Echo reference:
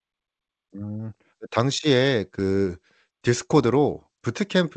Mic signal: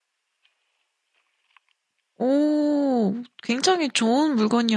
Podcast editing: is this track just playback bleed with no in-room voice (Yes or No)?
No